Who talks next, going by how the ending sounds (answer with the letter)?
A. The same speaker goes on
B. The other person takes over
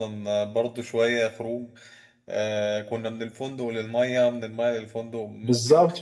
B